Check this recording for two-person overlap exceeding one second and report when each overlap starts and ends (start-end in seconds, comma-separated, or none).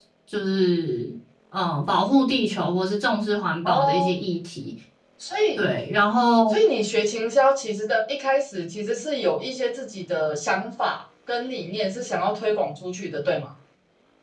none